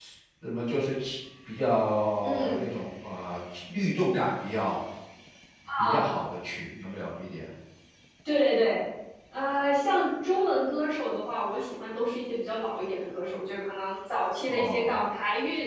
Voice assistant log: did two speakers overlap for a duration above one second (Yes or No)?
No